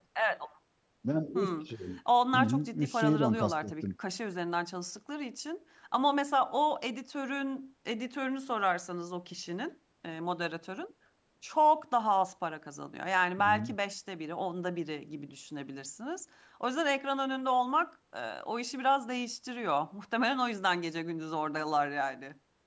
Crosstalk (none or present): present